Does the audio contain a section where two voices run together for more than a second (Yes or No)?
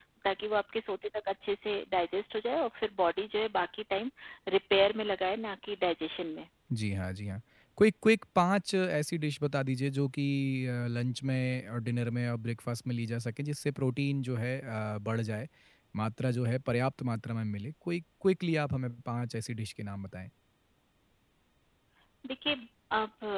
No